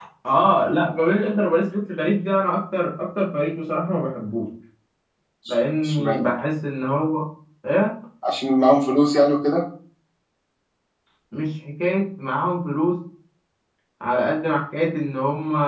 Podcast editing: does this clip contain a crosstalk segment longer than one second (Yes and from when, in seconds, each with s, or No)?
No